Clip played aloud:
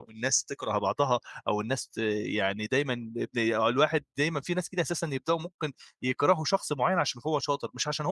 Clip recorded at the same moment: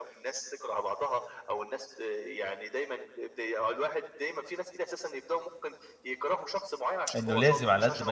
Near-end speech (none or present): present